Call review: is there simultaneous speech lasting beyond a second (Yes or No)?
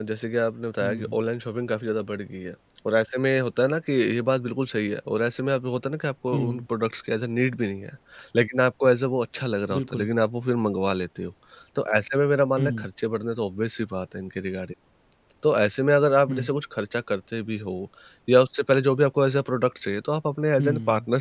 No